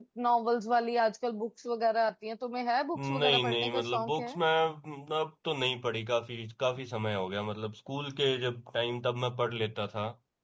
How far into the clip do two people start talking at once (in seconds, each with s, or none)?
3.0 s